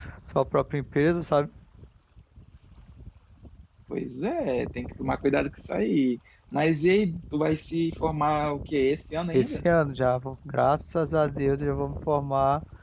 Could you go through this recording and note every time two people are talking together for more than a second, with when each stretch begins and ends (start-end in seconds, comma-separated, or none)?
none